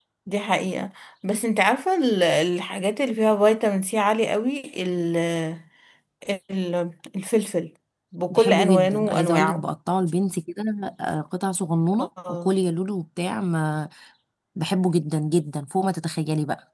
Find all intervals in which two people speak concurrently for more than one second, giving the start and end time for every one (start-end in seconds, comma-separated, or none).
8.3-9.7